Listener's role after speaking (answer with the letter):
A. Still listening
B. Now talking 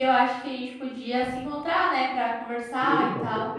B